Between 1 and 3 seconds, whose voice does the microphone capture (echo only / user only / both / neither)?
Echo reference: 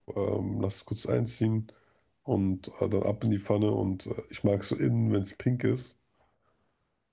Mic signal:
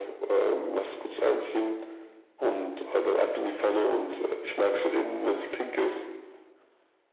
echo only